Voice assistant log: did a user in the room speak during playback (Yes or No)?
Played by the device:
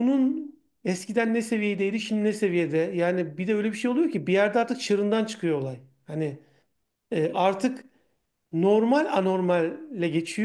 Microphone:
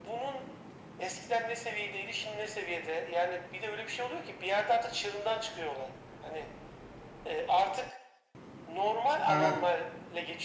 Yes